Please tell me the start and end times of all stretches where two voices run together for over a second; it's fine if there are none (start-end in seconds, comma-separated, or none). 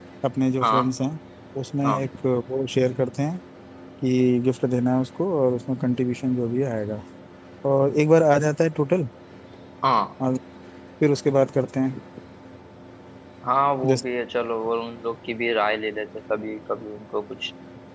none